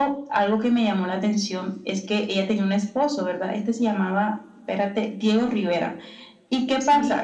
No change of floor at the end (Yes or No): Yes